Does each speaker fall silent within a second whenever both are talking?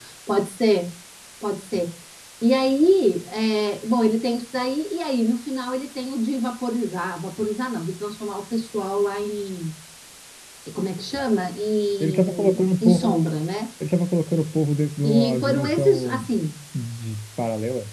No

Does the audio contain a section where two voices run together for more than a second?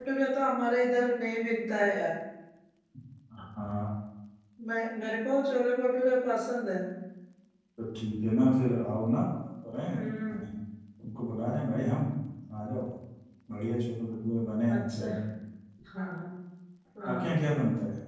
No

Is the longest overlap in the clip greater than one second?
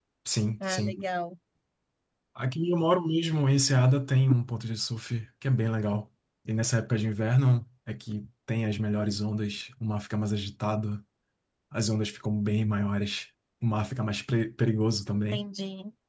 No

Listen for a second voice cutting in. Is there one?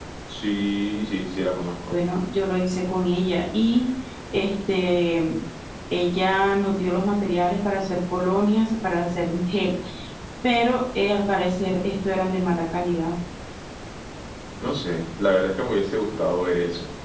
No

